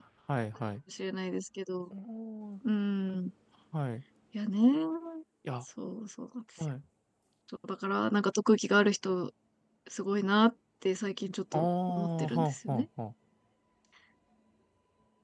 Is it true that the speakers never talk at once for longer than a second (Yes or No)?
No